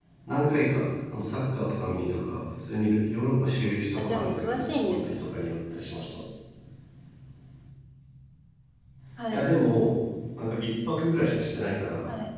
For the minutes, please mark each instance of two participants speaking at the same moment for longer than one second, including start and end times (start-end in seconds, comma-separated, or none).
4.0-5.3